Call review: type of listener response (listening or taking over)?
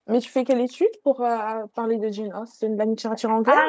taking over